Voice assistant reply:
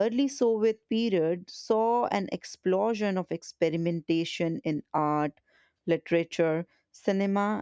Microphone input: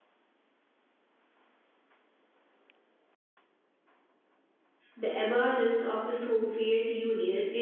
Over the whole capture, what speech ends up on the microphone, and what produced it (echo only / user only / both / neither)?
user only